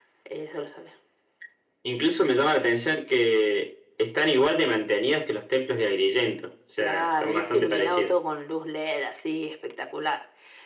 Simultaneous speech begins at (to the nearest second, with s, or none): 7 s